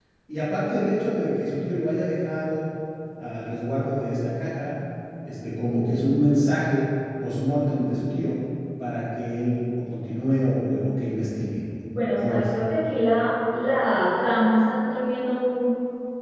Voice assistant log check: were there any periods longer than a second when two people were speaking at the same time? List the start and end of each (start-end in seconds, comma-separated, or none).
none